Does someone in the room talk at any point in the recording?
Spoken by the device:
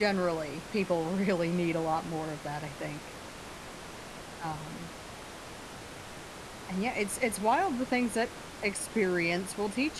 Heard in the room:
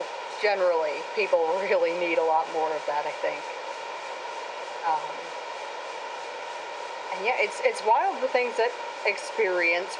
No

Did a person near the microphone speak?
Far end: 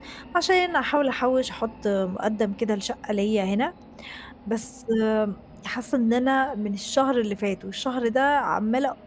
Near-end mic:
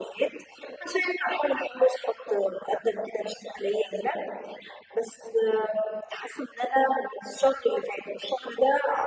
No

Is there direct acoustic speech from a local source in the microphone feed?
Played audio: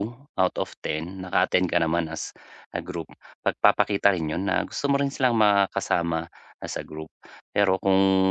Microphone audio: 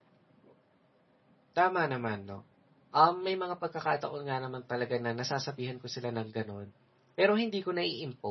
Yes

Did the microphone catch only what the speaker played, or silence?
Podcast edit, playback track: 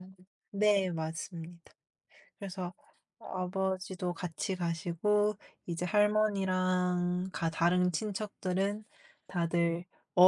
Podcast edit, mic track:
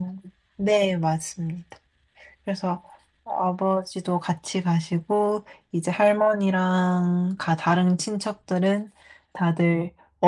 Yes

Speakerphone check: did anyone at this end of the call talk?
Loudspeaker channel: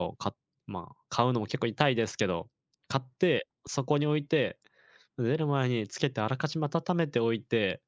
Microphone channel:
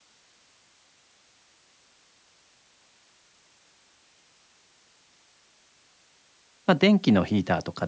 Yes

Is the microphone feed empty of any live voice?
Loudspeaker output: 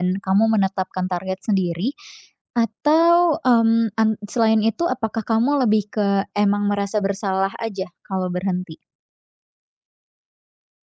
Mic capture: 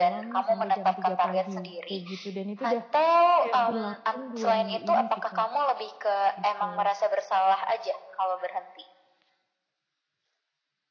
No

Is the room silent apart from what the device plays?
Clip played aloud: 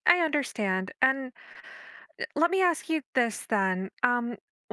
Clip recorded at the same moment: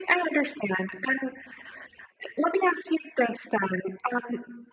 Yes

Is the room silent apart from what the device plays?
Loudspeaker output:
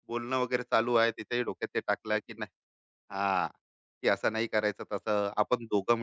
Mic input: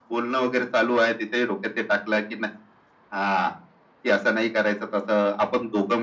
Yes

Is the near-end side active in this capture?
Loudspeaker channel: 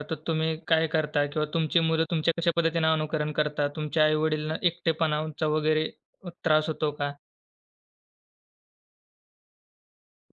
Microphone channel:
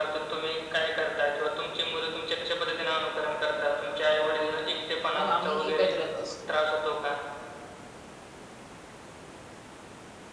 Yes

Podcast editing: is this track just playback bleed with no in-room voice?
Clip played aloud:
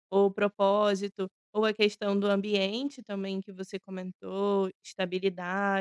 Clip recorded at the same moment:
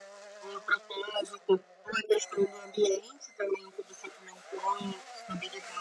Yes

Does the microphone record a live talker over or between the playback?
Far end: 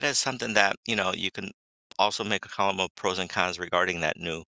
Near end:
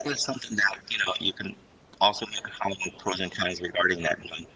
No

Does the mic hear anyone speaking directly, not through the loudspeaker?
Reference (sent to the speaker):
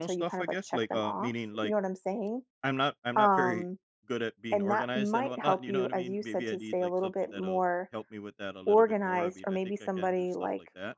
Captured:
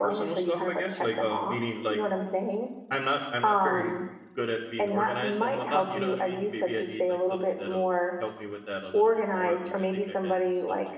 No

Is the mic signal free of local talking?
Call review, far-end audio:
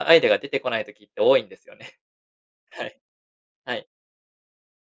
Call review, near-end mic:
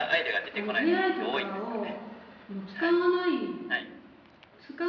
No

